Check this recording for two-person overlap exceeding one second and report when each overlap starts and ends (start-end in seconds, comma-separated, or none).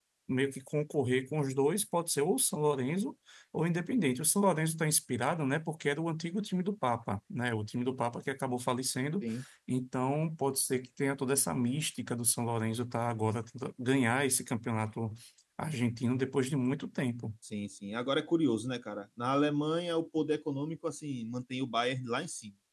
none